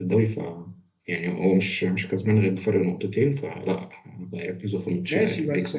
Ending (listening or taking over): taking over